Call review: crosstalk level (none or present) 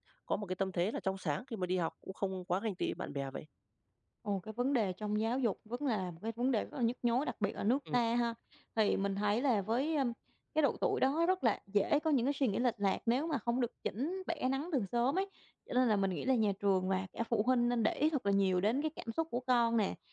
none